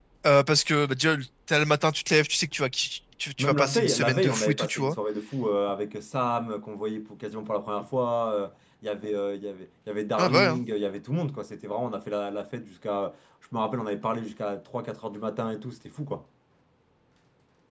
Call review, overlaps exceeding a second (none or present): present